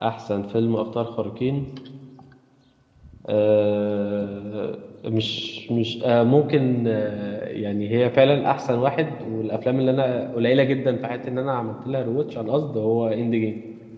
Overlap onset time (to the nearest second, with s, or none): none